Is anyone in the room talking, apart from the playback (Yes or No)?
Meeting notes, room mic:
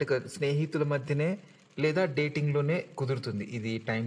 No